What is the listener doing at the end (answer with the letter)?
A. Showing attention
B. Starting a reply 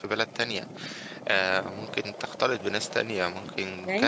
B